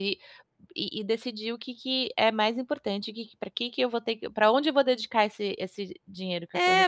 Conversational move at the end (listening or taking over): taking over